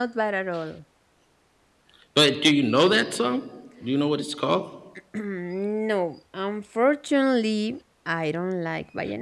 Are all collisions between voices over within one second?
Yes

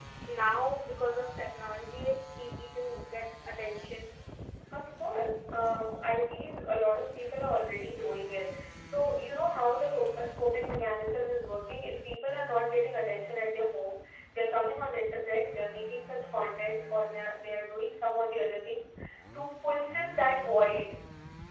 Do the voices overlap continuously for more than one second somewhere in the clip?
No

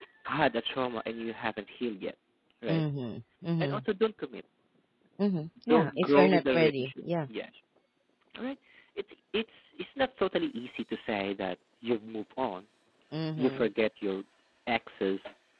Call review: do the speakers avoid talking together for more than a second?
No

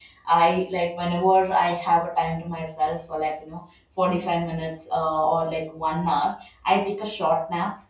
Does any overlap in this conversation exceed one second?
No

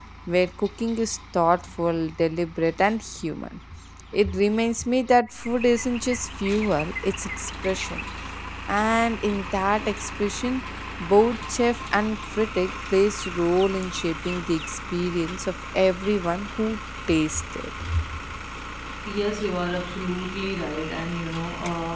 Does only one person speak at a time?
Yes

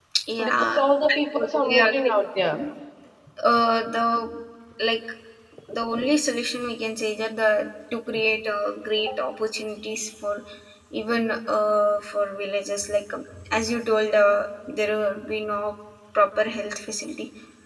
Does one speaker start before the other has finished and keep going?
Yes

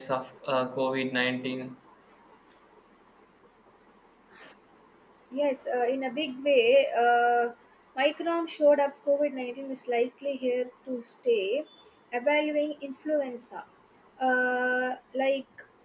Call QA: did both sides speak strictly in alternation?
Yes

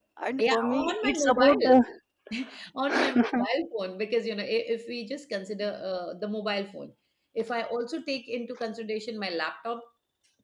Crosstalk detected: Yes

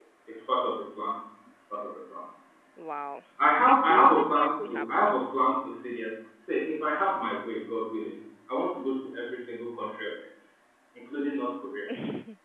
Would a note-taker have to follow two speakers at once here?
Yes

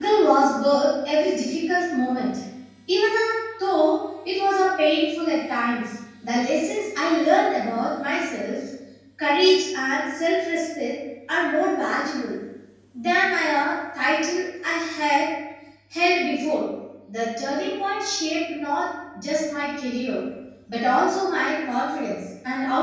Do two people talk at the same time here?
No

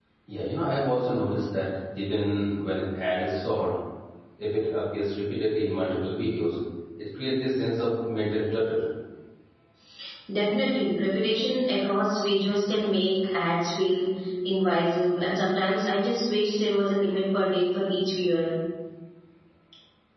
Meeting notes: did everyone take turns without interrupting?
Yes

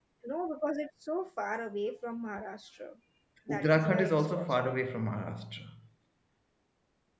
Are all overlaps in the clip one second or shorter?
No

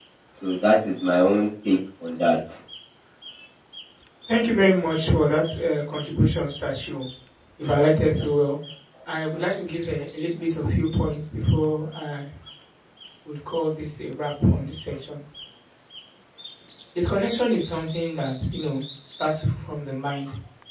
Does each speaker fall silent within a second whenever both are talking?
Yes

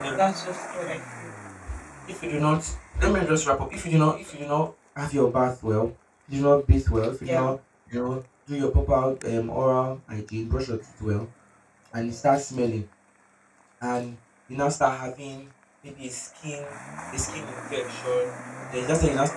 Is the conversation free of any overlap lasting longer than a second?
Yes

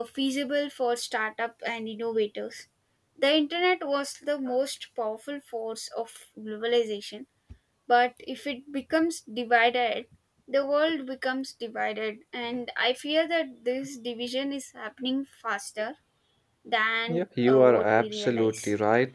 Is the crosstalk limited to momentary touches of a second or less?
No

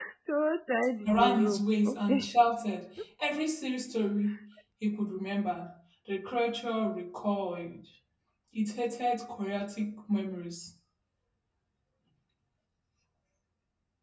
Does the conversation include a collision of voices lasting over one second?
Yes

